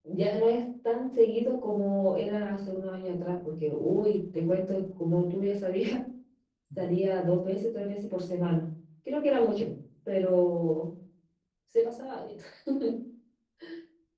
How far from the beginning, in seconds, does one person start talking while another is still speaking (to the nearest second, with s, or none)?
none